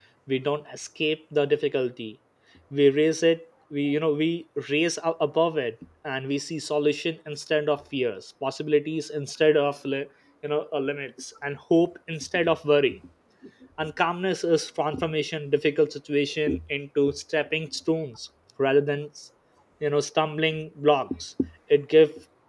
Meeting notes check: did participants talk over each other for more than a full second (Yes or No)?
No